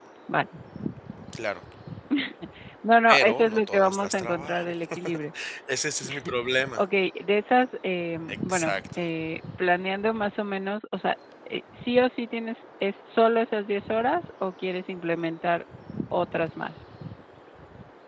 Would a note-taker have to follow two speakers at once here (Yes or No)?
Yes